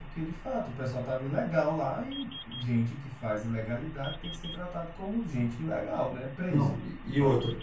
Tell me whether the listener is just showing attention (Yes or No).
No